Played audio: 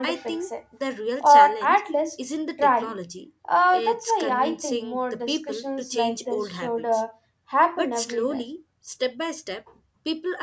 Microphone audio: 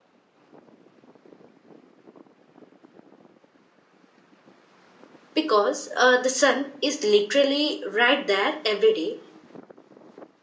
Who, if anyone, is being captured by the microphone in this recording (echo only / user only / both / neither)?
user only